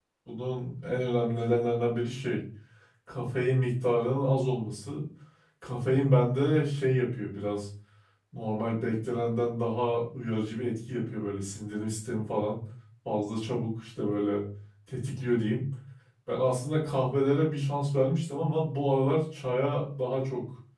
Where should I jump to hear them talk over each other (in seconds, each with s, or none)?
none